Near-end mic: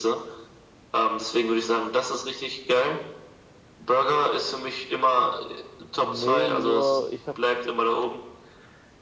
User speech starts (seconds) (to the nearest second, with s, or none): 6 s